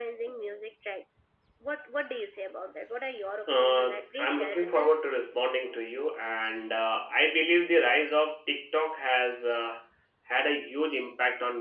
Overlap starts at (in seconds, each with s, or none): 3.5 s